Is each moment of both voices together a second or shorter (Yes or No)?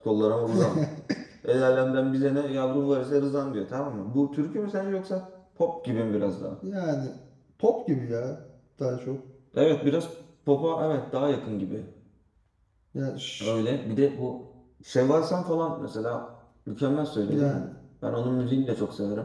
Yes